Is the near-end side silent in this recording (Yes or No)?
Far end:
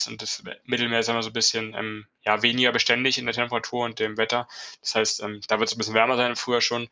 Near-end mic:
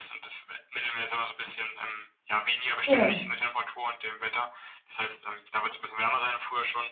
No